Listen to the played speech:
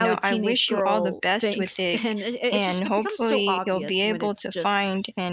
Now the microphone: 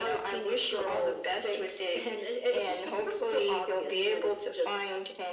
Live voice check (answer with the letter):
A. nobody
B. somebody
A